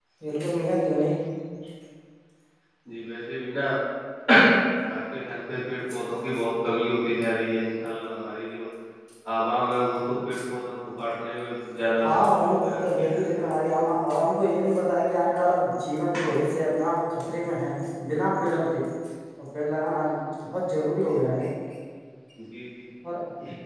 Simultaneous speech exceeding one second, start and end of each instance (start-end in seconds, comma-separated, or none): 12.0-13.4